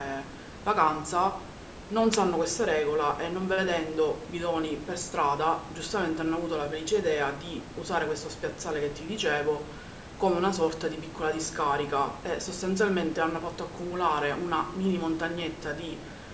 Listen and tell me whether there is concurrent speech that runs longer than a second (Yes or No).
No